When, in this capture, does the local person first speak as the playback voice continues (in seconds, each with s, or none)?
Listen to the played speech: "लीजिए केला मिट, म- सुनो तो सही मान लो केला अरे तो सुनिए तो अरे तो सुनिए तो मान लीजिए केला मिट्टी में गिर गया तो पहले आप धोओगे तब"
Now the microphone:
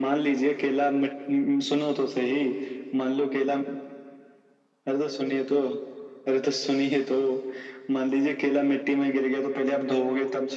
none